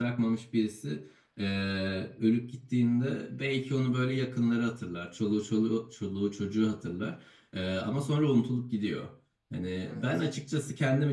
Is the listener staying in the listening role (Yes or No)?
Yes